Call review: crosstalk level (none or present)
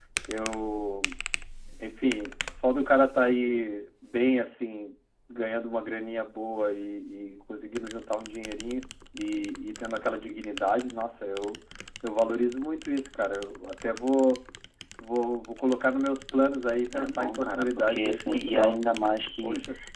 present